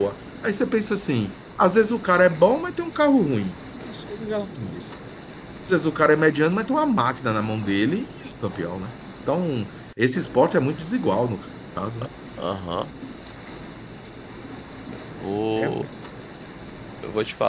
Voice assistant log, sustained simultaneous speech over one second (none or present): none